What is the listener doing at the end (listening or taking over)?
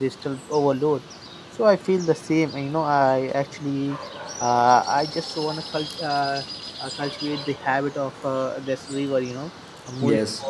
listening